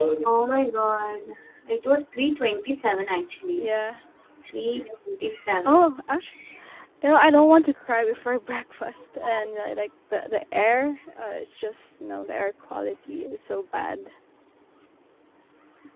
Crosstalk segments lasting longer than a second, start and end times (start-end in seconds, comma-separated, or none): none